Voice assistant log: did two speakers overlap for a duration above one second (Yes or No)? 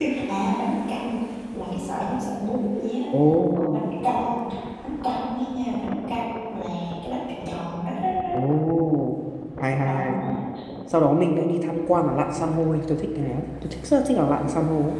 No